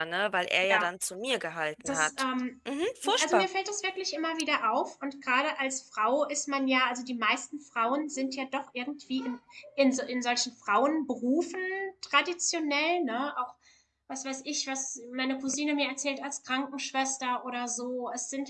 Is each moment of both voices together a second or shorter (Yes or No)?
Yes